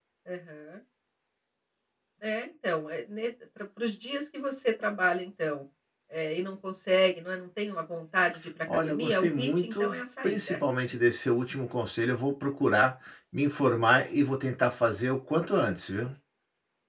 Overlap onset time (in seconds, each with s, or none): 8.7 s